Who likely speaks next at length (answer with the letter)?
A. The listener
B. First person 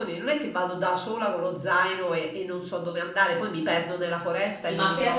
A